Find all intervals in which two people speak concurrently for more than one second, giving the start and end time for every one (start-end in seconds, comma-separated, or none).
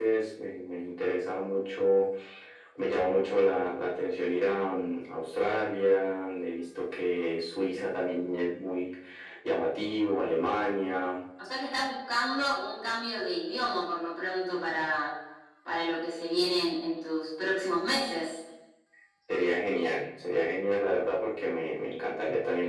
none